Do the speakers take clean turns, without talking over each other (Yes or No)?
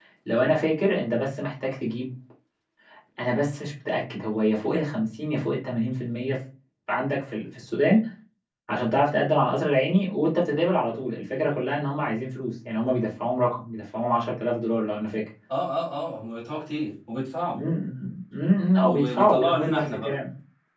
No